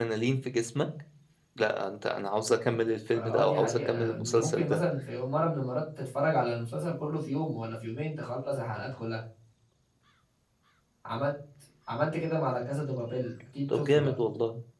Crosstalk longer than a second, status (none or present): present